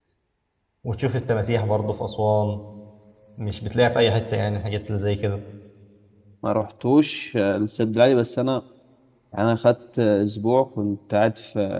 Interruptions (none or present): none